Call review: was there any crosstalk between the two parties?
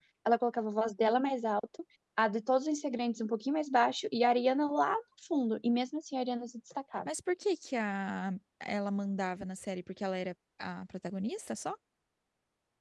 No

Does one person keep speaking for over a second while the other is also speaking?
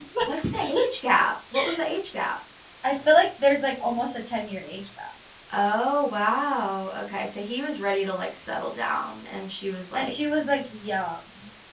No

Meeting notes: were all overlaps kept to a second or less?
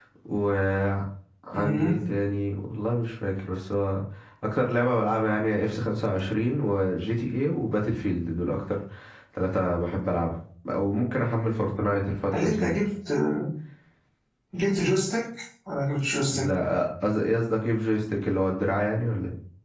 Yes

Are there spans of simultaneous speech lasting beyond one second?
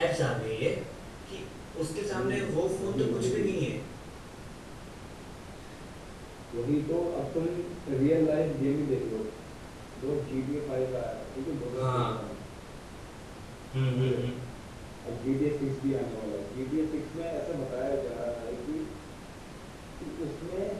Yes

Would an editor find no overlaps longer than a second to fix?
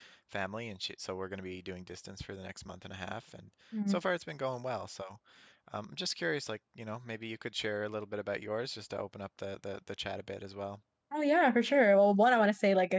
Yes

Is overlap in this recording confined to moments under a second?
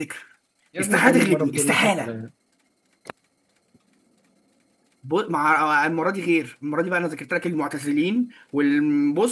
No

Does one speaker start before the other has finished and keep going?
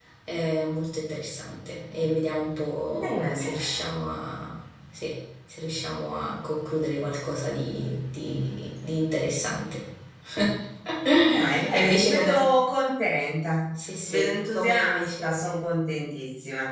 Yes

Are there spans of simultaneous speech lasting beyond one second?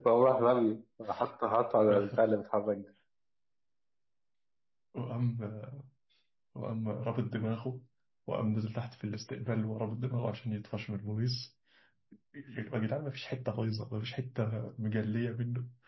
No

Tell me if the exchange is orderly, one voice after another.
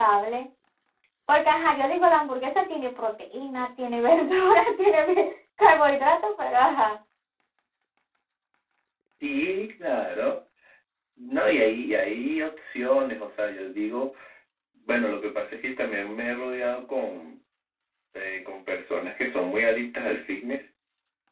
Yes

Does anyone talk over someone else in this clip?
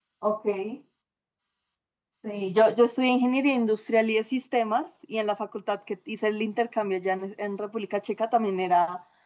No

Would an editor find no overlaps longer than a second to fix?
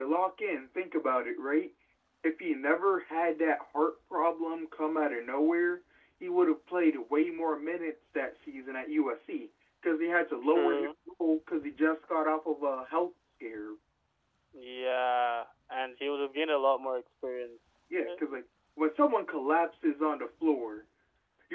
Yes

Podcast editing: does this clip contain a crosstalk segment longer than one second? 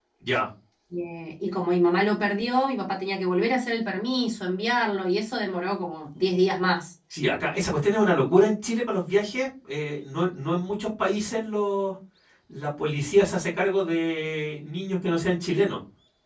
No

